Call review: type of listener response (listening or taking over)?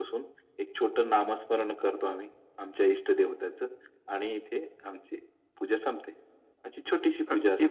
listening